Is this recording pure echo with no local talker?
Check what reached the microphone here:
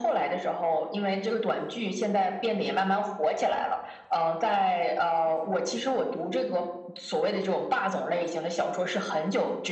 Yes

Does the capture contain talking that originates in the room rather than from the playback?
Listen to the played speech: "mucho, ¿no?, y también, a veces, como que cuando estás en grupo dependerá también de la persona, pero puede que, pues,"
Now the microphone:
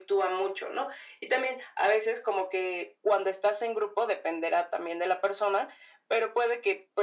No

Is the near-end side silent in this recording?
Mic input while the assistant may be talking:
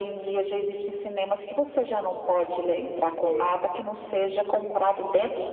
No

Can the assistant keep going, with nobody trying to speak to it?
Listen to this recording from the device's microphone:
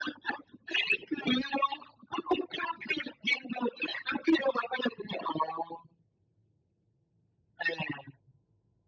Yes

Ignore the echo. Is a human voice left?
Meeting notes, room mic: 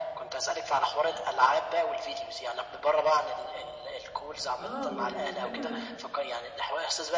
Yes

